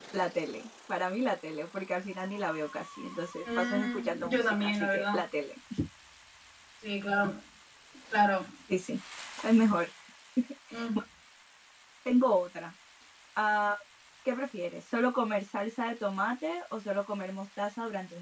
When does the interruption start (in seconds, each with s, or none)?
3.4 s